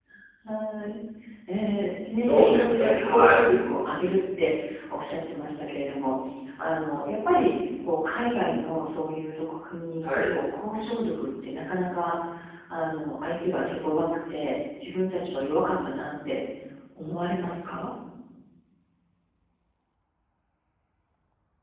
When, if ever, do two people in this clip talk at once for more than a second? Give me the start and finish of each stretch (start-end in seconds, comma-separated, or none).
2.1-3.4